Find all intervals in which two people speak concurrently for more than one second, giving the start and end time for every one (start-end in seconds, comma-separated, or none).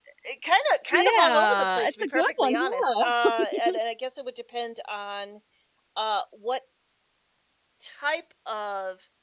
0.9-3.0